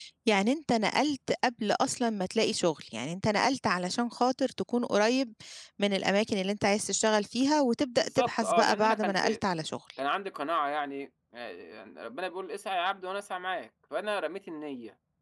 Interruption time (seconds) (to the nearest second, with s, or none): 8 s